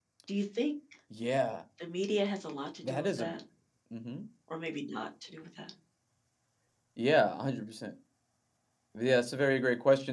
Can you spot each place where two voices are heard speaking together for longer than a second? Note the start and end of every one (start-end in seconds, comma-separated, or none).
none